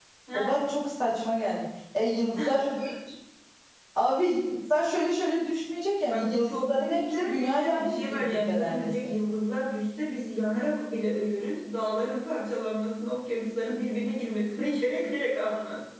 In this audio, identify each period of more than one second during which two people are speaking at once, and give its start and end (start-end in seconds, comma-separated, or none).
6.0-8.9